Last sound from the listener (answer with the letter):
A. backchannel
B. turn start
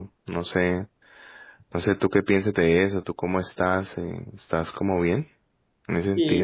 B